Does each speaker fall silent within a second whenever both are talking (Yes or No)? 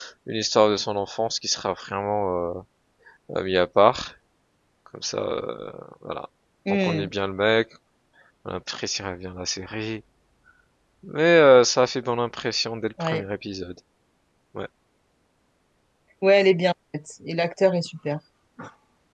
Yes